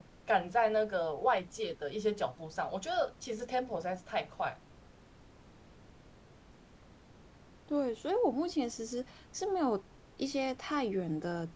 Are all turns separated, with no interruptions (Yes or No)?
Yes